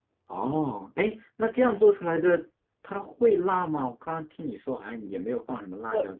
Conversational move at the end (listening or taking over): taking over